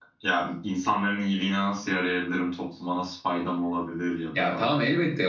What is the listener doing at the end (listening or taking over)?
taking over